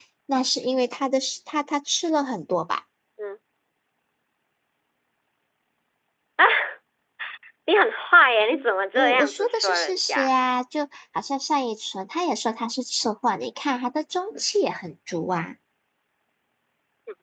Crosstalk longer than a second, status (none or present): present